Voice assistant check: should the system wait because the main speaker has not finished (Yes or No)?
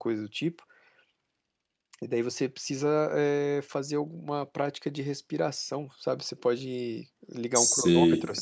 No